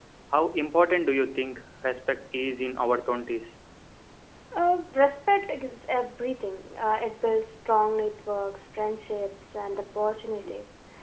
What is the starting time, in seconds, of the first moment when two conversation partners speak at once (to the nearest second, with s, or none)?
none